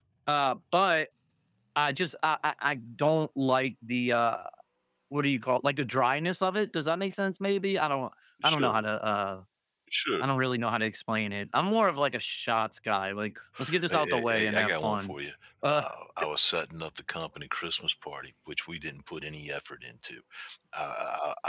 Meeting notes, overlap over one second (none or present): present